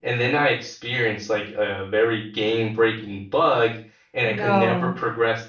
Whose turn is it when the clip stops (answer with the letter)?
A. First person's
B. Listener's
A